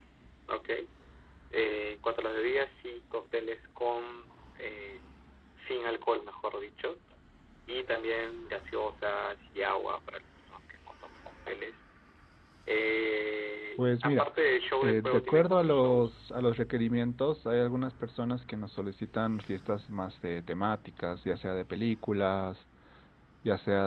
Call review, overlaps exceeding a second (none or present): present